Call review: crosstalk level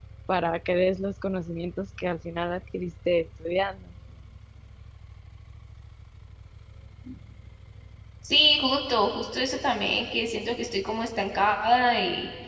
none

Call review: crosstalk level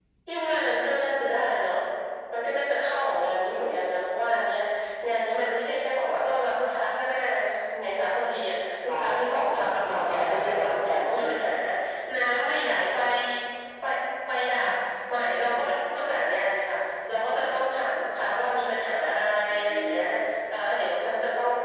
present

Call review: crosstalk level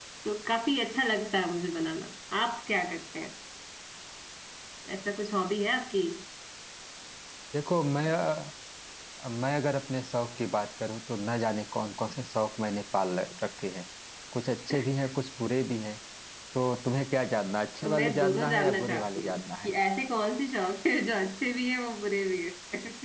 present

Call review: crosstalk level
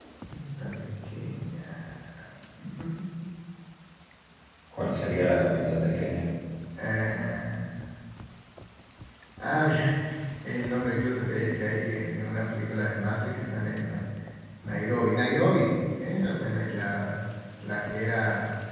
none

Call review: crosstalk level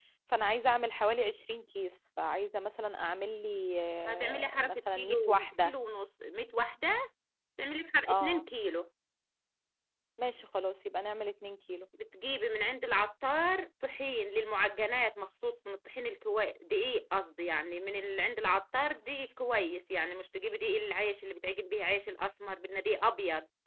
present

